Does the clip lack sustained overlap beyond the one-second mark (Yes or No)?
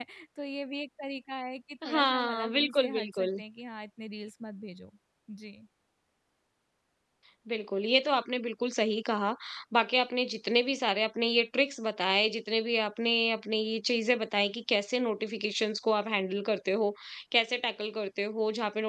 No